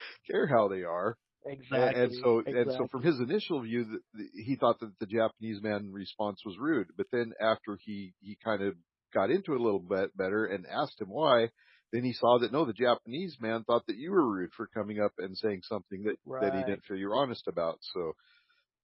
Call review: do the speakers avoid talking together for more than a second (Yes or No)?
No